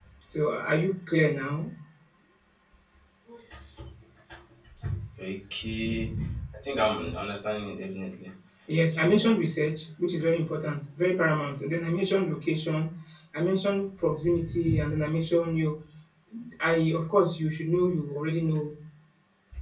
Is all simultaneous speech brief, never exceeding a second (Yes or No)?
Yes